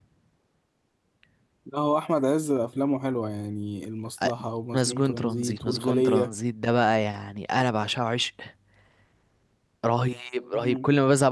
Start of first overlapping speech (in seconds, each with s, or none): 4.7 s